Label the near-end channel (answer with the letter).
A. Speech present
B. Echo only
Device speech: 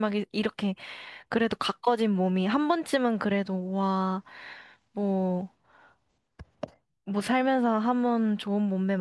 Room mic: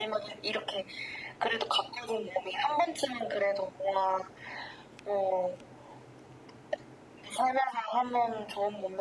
B